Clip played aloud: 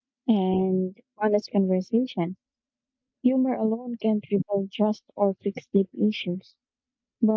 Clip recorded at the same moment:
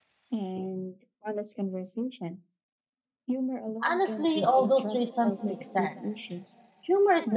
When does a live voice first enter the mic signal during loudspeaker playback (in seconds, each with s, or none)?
3.9 s